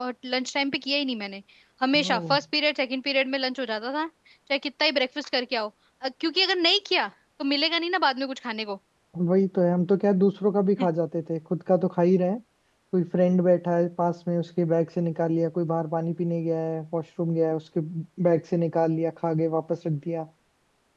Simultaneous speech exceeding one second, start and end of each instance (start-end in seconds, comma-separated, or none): none